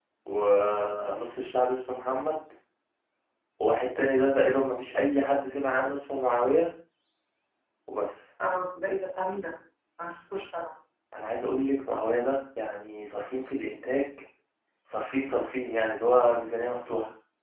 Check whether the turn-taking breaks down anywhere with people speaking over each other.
No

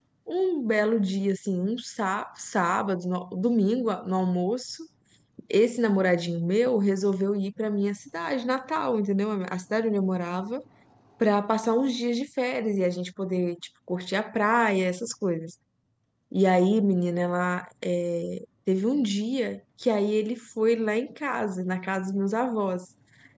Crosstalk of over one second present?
No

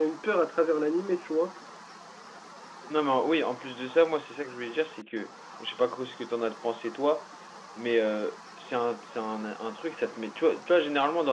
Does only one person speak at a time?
Yes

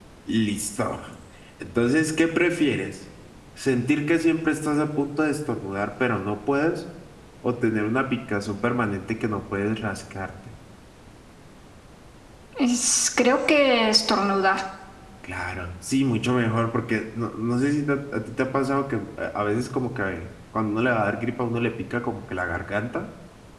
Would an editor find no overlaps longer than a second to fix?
Yes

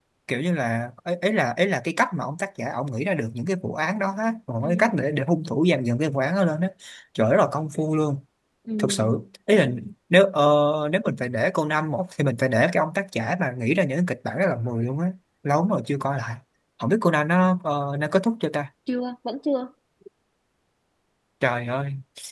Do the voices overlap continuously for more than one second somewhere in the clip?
No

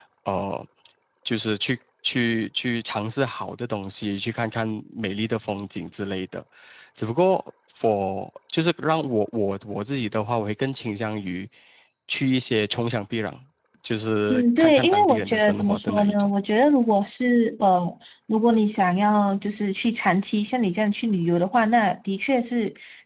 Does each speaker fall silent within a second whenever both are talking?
No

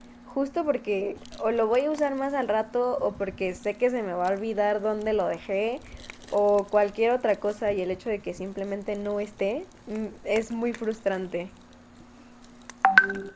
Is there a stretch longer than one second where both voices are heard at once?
No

